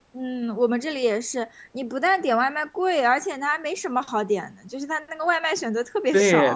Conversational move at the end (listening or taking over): taking over